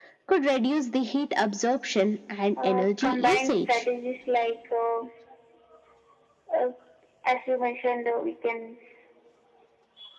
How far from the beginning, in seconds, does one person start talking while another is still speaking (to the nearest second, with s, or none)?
3 s